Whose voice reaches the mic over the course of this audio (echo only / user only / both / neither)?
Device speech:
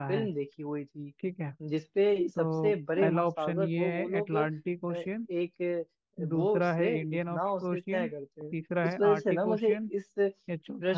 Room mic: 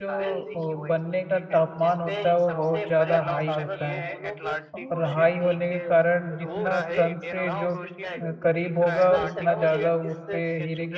both